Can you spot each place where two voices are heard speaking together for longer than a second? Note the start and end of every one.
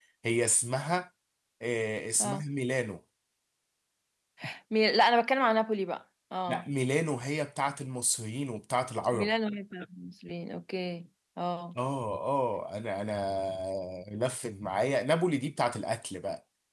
none

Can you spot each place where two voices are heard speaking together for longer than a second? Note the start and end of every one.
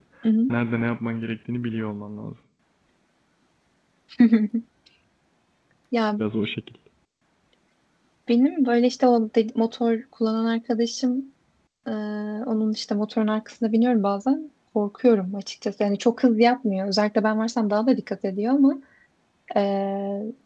none

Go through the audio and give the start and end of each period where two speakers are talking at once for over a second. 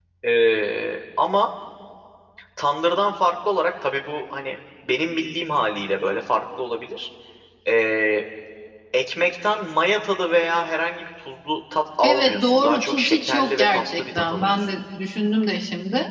12.0-14.8

